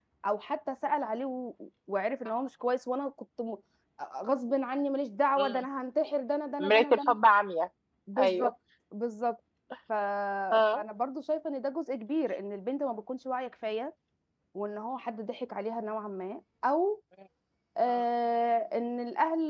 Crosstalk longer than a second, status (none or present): none